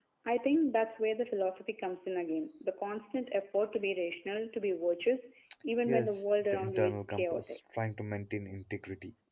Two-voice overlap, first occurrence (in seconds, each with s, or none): 5.9 s